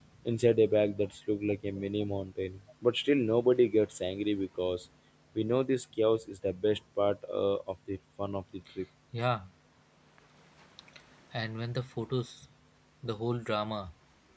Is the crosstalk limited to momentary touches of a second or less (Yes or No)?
Yes